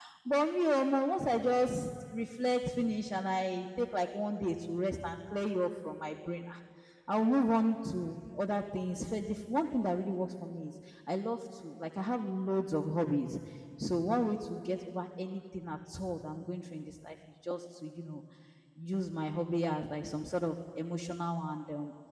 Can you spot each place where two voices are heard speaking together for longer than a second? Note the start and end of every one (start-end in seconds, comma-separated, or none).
none